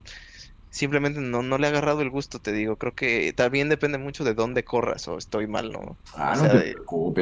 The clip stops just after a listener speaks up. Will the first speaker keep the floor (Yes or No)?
No